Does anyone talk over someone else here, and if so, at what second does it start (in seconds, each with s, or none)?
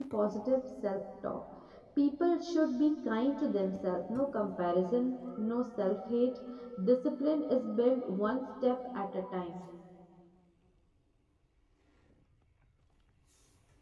none